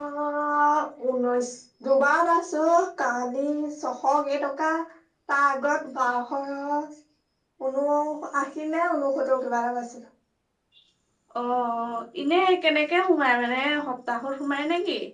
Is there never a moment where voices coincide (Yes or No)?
Yes